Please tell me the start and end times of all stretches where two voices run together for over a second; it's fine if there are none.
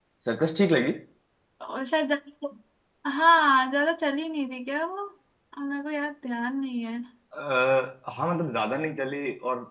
none

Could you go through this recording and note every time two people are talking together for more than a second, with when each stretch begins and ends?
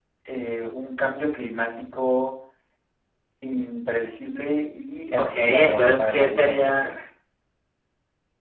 5.2-6.9

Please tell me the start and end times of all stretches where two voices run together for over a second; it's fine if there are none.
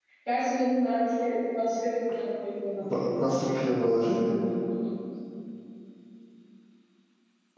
2.9-4.2

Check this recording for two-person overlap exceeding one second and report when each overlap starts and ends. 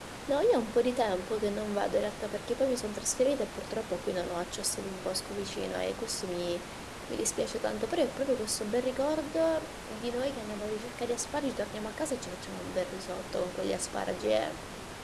none

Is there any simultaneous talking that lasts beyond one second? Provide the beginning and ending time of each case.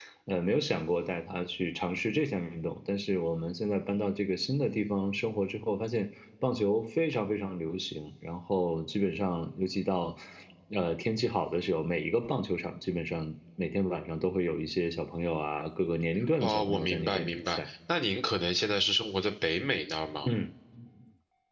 16.4-17.7

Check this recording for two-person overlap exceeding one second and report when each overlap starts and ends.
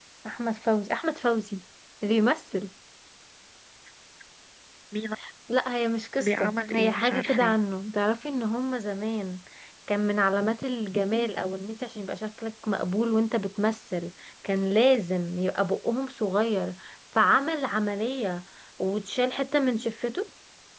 6.2-7.5

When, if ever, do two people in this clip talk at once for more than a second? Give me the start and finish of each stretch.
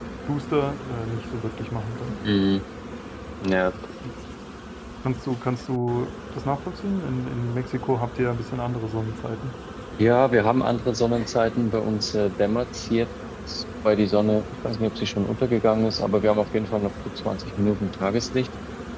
none

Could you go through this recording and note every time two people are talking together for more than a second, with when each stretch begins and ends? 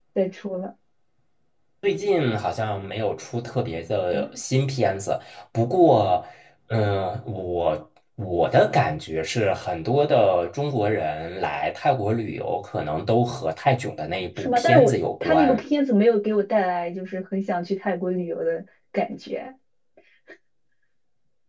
14.4-15.6

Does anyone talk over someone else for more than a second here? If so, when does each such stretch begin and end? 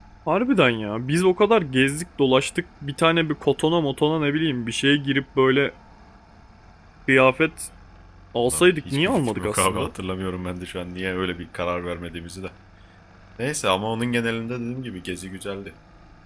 8.5-9.9

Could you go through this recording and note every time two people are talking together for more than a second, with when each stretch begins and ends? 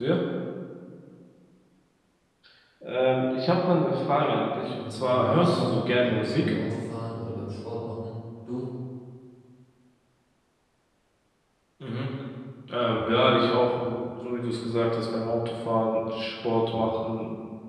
4.8-6.5

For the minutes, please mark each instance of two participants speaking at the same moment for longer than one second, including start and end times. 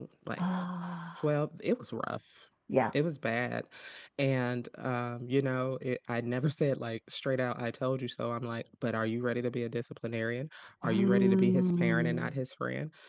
10.8-12.3

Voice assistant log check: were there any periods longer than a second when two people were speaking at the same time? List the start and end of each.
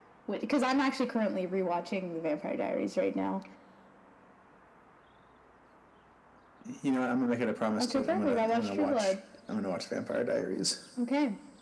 7.8-9.1

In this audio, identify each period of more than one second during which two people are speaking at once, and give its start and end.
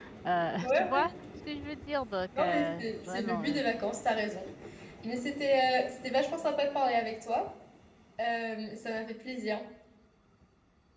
2.4-3.6

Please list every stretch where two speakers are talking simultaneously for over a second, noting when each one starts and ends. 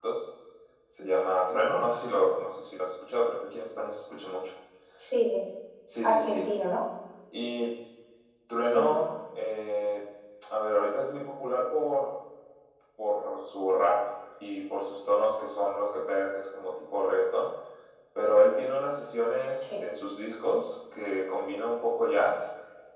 none

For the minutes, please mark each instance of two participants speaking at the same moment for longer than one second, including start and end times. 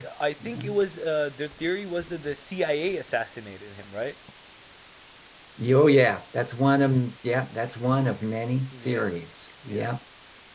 none

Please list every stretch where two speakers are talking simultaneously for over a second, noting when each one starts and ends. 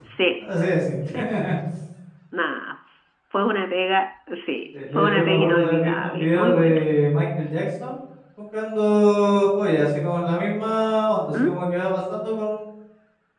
5.0-6.8

